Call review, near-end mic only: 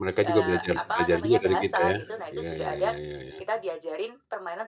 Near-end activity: present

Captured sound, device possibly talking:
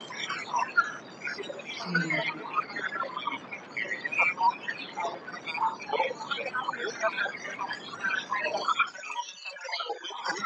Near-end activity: present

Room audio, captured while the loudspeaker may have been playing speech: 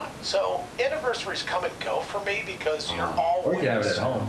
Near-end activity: present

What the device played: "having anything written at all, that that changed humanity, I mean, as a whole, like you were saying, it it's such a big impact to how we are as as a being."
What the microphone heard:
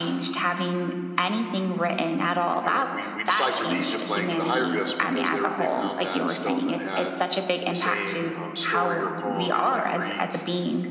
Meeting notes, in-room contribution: present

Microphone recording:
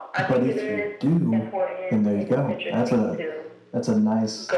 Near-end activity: present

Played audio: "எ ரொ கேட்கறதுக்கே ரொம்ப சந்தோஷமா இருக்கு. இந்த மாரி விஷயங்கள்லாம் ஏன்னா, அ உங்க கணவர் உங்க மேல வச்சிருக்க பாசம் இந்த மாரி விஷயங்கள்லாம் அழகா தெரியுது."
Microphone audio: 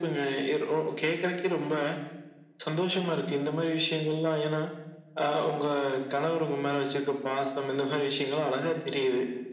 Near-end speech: none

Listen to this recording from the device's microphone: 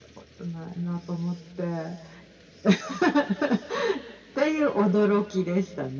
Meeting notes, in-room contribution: none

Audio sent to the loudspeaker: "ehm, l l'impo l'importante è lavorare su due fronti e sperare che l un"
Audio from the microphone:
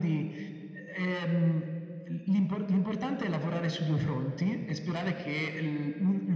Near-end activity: none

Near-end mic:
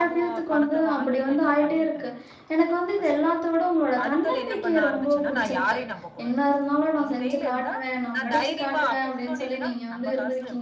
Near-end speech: present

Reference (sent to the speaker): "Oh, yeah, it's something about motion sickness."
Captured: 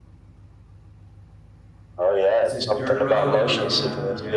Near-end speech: present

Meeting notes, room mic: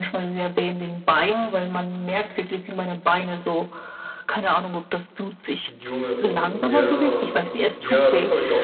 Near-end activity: present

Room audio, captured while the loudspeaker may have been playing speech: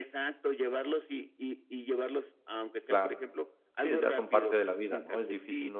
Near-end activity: present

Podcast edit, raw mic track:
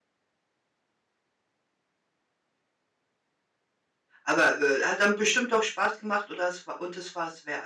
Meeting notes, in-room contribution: present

